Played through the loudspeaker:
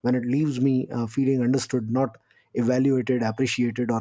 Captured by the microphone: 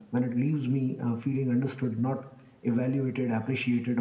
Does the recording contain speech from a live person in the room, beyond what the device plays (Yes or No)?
No